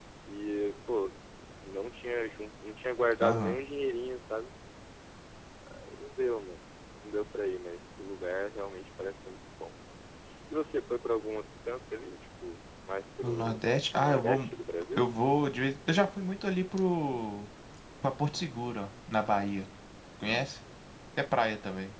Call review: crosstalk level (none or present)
present